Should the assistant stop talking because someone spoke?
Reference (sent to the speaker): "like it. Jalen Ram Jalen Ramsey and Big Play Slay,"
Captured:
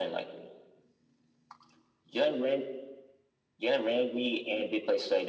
No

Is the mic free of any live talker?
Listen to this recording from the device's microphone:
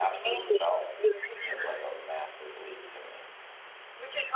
No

